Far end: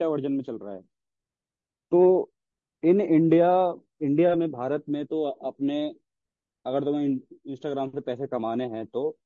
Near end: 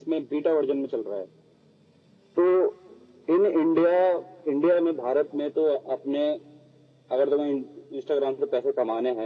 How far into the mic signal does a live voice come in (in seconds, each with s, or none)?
none